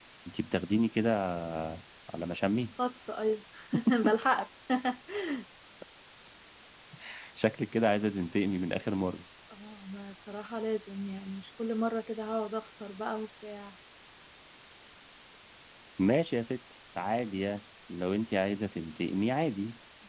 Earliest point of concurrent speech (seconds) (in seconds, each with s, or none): none